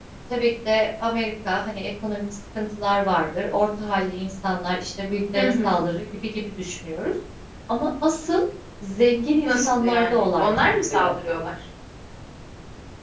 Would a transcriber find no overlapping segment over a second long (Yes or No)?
No